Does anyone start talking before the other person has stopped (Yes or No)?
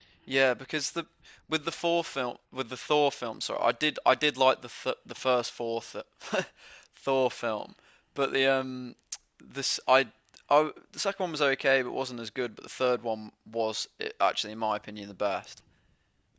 No